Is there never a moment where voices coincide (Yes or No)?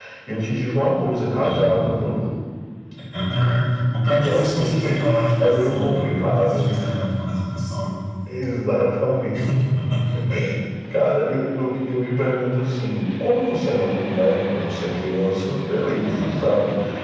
No